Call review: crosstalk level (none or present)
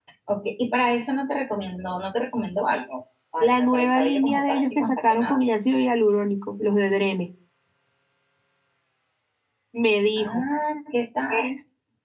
present